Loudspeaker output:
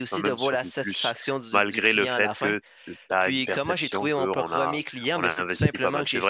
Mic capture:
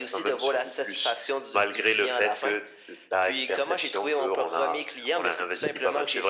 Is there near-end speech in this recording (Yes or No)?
No